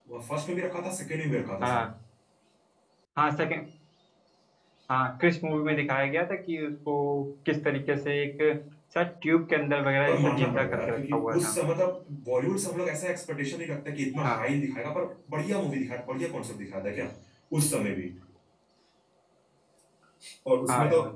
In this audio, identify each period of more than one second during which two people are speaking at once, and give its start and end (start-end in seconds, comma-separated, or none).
10.1-11.5